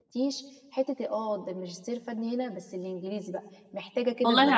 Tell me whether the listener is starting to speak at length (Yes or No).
Yes